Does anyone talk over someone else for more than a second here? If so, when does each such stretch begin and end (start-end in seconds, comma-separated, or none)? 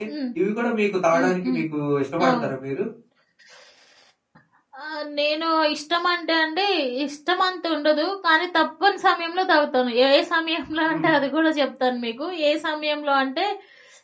none